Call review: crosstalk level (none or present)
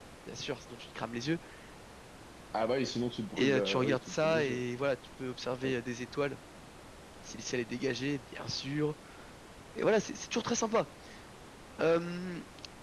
present